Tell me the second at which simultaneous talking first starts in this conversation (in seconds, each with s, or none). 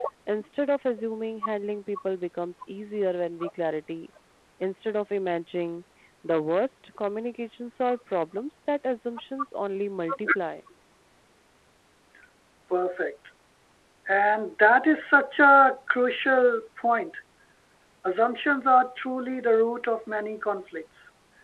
none